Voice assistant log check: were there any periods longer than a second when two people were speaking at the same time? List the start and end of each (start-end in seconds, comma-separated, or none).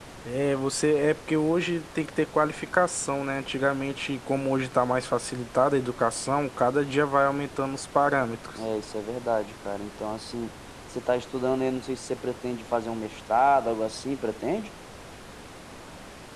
none